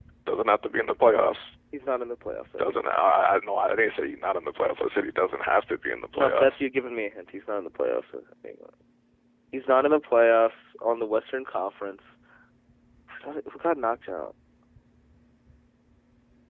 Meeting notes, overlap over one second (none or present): none